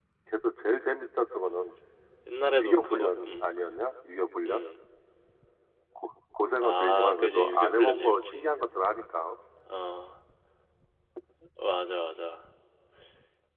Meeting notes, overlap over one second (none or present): present